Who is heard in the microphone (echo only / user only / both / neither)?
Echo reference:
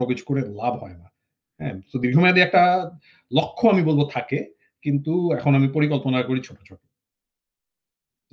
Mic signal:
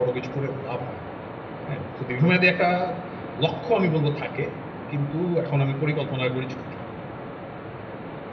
echo only